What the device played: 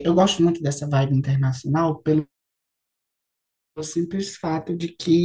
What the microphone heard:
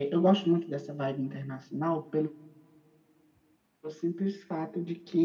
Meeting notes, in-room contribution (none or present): none